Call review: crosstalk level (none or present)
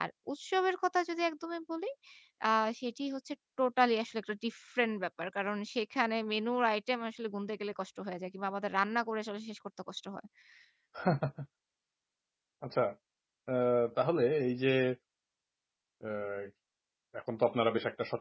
none